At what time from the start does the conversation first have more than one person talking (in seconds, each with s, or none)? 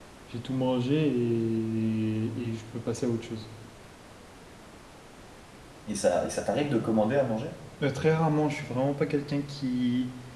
none